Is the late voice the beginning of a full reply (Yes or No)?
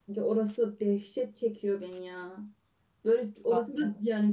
No